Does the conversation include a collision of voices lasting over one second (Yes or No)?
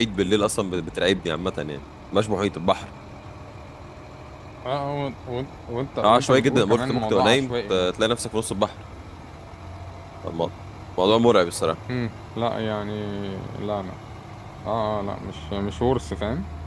Yes